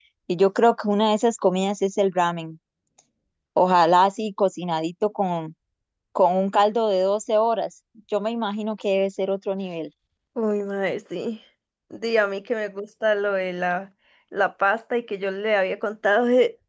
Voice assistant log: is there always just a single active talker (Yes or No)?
Yes